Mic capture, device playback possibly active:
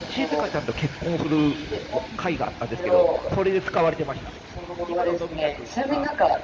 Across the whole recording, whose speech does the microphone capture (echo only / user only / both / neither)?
both